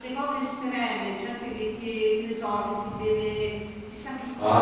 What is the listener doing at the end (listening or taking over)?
taking over